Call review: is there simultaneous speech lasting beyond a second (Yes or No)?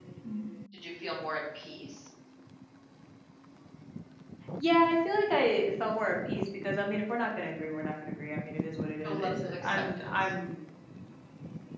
Yes